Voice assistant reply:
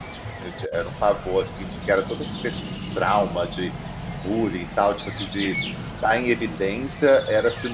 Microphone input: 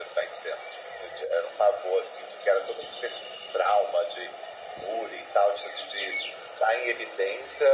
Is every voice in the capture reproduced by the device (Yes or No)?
Yes